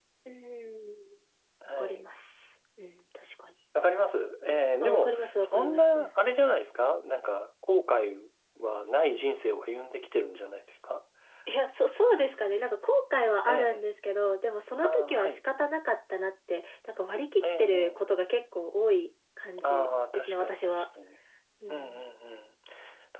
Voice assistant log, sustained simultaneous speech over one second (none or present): present